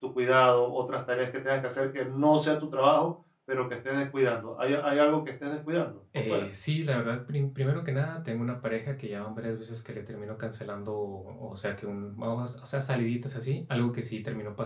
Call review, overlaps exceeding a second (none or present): none